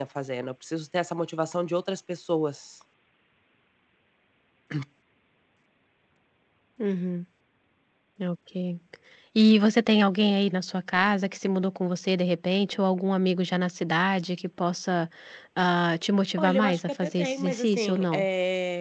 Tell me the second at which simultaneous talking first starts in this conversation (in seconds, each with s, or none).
16.4 s